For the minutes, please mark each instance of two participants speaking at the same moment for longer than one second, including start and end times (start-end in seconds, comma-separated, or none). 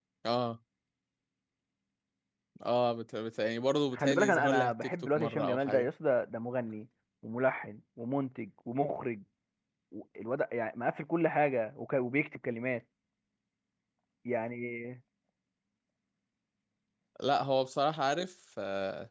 3.9-5.9